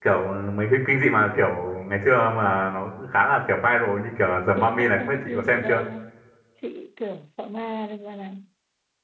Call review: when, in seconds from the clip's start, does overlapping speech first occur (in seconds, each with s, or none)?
4.6 s